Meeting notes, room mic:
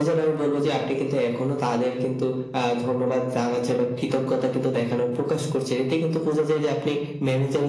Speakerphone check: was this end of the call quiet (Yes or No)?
Yes